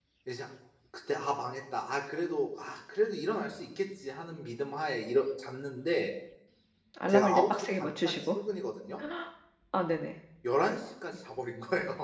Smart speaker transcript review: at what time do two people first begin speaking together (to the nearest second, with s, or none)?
7 s